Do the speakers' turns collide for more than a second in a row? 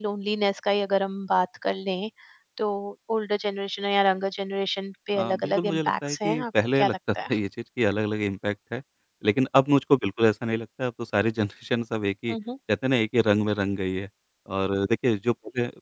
Yes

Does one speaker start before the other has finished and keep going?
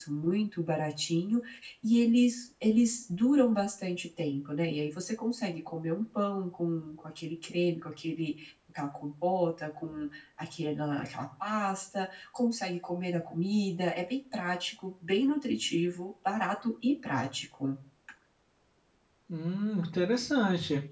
No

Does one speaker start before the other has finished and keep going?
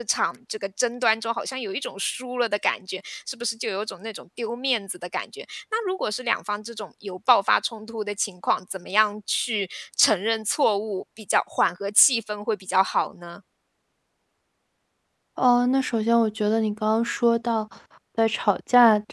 No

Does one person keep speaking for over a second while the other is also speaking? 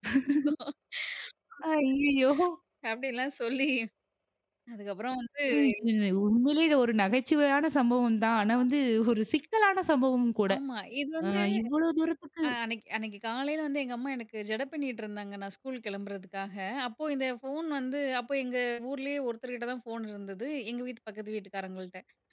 No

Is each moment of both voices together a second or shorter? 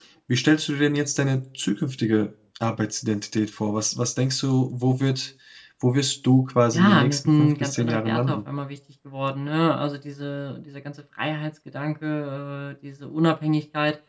No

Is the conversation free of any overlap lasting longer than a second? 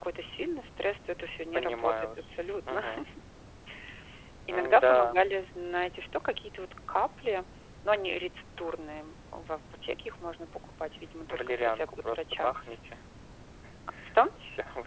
No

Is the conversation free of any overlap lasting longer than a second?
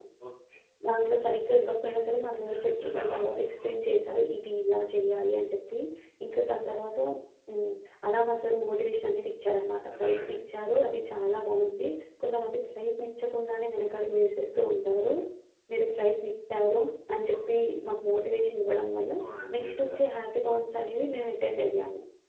No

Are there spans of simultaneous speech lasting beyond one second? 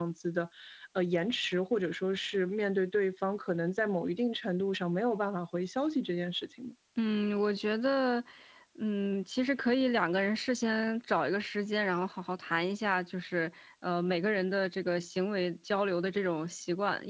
No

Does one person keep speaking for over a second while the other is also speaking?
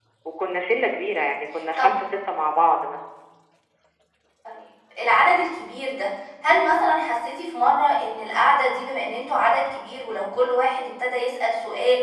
No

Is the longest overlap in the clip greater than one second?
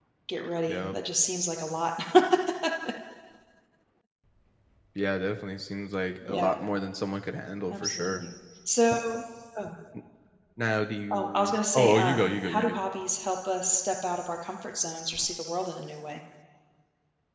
Yes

